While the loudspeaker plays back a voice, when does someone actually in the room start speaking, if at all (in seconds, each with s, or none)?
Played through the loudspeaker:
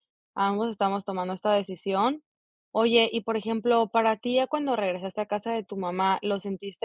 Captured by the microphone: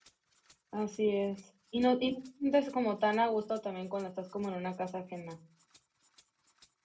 0.7 s